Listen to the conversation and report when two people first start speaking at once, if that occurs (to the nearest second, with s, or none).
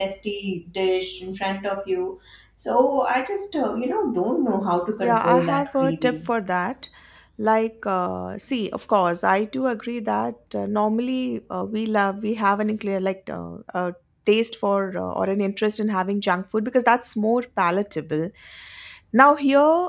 5 s